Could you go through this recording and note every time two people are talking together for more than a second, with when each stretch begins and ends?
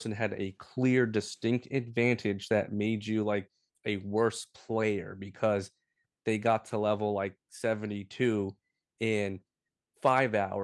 none

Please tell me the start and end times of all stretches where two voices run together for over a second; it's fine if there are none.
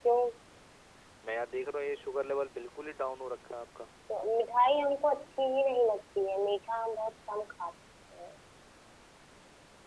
none

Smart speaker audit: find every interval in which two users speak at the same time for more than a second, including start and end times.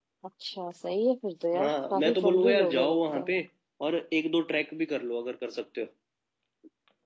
1.6-3.3

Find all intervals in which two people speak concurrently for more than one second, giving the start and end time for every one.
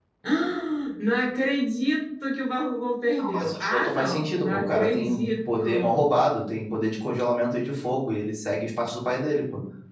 3.3-6.1

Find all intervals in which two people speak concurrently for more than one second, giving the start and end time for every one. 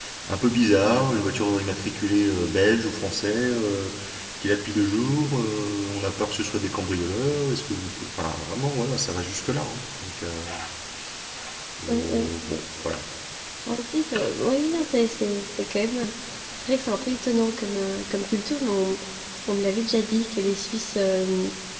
none

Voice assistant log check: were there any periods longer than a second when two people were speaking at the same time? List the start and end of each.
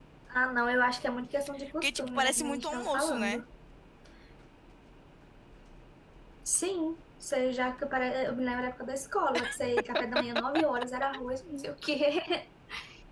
1.8-3.4

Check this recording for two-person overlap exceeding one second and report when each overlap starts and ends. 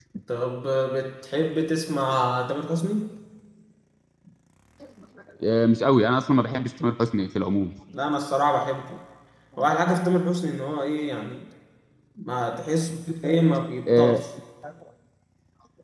none

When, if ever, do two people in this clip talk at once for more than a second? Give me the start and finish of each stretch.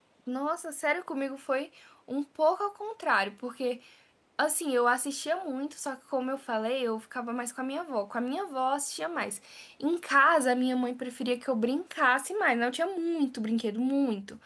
none

